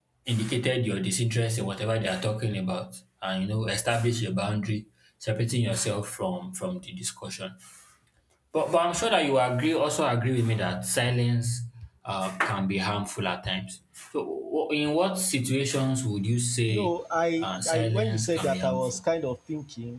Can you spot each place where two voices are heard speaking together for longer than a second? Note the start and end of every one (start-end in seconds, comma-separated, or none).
17.4-19.0